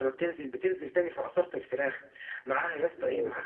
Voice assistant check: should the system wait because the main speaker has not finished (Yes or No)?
Yes